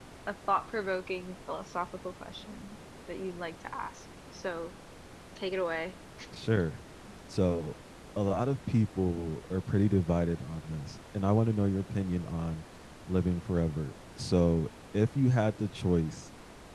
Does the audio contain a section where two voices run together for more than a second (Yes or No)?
No